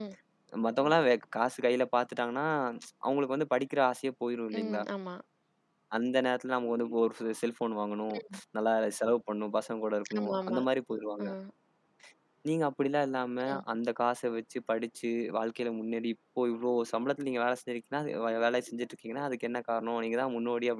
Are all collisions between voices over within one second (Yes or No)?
Yes